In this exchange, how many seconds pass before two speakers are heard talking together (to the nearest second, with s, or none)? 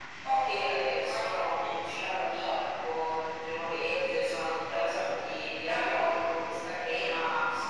1 s